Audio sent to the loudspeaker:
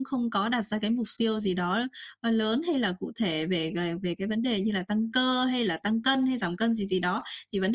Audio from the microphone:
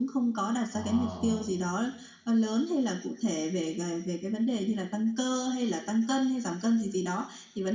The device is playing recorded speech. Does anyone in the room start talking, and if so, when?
1 s

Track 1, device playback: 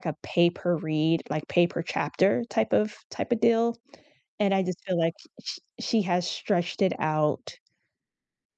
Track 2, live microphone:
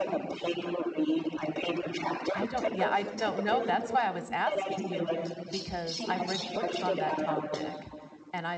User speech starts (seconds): 2 s

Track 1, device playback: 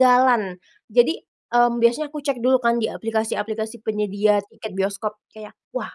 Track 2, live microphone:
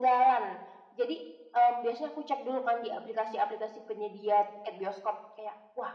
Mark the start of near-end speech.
none

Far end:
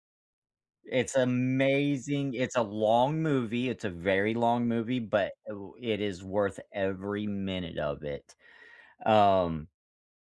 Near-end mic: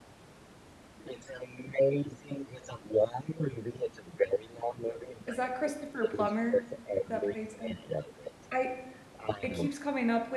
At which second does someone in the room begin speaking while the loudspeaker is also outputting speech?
5 s

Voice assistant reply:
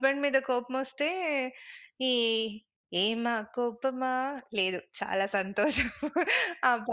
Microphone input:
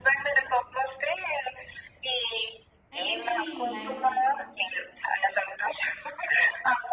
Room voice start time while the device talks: 3 s

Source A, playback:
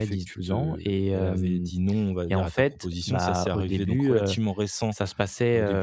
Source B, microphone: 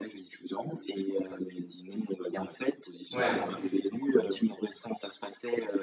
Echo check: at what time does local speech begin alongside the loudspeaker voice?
3 s

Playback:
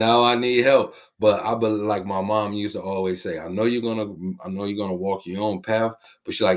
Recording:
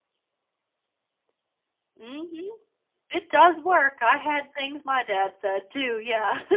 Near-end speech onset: 2 s

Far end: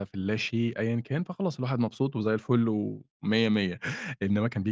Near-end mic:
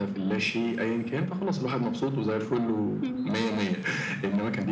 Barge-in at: 3 s

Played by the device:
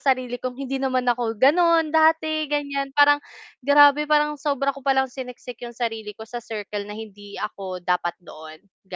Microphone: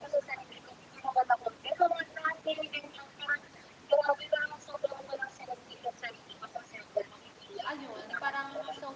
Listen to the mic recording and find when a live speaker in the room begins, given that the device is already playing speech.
8 s

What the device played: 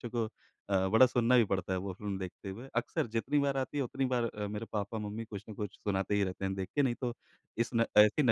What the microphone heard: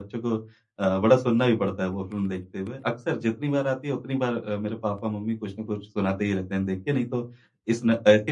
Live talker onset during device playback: none

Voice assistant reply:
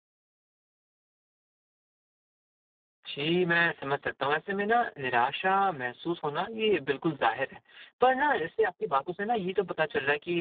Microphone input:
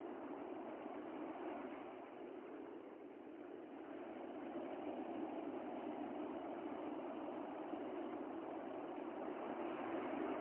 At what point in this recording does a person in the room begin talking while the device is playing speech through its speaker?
none

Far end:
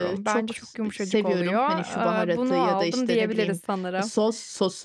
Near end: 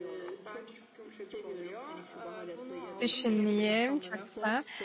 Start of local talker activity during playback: 3 s

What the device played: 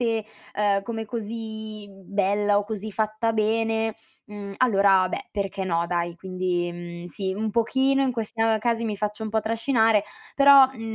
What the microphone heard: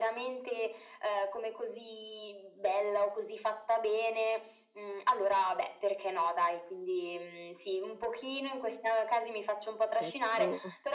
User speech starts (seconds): 10 s

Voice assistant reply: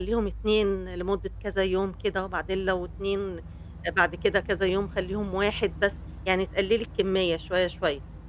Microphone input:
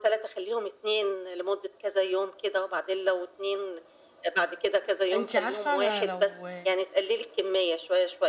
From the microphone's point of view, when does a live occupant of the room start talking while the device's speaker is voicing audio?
5 s

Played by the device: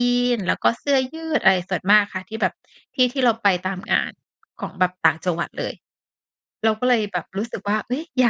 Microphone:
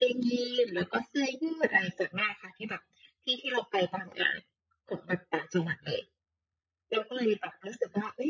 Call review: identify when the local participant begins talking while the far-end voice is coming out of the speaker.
none

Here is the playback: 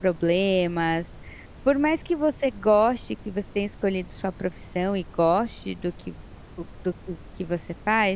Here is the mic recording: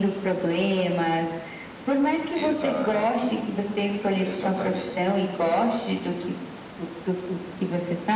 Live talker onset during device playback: 2 s

